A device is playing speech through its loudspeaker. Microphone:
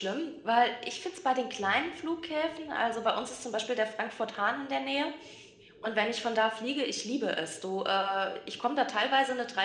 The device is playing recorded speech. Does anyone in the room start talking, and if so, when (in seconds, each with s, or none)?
none